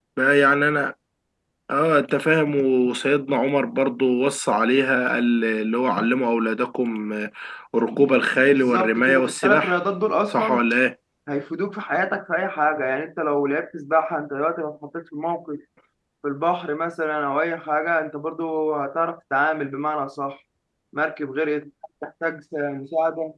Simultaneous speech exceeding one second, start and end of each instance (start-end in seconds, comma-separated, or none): 8.5-9.8